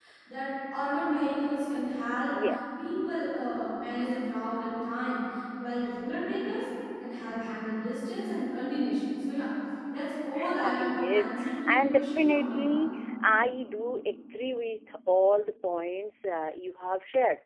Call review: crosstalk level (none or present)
present